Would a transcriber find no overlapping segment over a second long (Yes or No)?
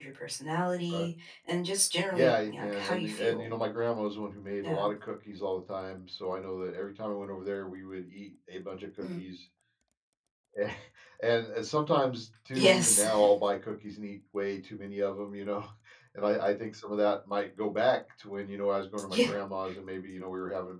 No